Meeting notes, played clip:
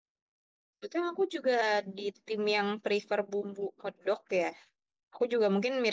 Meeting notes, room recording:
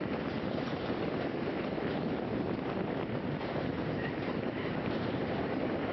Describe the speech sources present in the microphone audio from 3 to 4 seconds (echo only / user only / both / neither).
neither